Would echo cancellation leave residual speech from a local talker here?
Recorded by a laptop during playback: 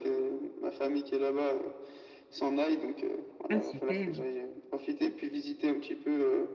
Yes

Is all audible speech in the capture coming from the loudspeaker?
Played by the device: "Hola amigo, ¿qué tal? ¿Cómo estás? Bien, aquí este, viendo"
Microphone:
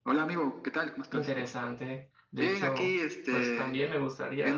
No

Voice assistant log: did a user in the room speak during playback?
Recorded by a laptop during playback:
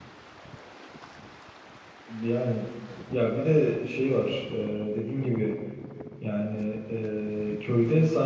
Yes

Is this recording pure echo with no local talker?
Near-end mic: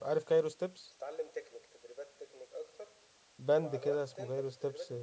No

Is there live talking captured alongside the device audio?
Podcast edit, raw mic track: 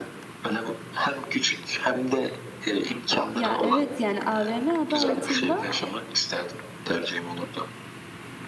Yes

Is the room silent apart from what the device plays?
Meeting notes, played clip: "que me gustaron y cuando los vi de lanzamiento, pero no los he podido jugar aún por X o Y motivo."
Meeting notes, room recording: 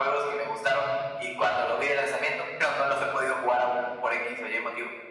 Yes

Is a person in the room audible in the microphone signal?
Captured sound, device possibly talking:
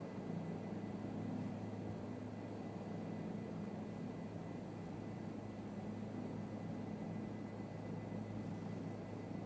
No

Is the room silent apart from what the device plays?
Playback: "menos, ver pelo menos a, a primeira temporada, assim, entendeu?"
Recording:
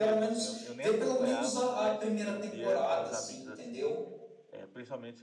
No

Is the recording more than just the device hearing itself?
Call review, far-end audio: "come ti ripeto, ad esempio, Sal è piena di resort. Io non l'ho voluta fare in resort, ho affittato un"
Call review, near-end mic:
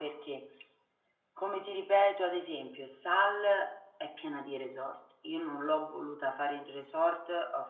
No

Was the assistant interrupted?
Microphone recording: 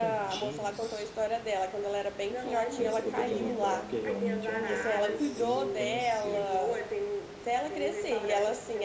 Yes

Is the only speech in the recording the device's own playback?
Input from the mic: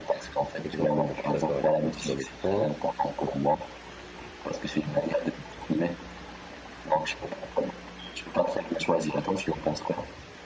No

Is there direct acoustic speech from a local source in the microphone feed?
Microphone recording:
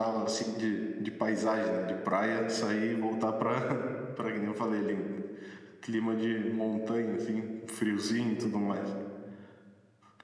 Yes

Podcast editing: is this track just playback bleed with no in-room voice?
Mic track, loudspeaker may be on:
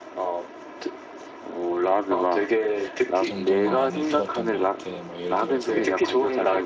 No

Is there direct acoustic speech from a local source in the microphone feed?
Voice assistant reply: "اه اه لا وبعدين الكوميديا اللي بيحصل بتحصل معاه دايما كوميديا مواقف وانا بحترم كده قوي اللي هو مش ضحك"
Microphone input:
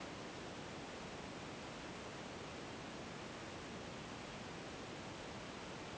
No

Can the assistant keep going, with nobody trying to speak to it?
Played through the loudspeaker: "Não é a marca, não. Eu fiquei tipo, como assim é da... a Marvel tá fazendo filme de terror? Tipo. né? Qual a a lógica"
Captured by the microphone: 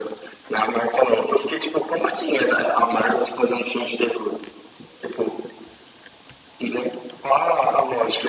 Yes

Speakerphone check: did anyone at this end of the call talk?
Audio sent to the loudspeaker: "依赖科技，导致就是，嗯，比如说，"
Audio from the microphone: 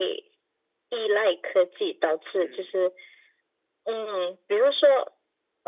Yes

